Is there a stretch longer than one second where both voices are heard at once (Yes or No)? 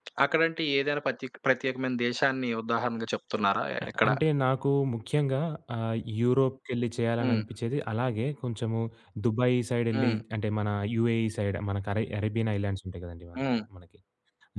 No